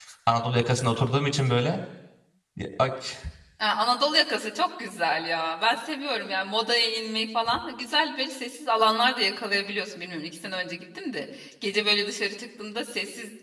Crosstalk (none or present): none